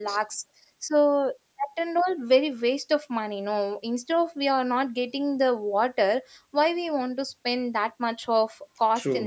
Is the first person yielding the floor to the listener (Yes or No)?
Yes